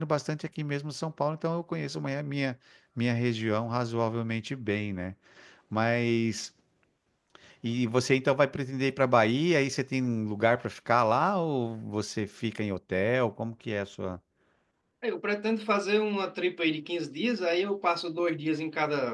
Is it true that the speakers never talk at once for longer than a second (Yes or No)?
Yes